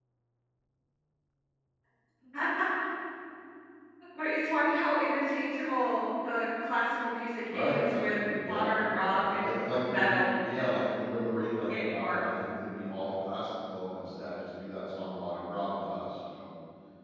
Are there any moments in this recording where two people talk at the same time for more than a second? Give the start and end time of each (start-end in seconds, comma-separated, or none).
7.5-10.1